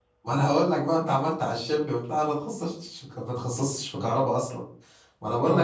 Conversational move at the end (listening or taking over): listening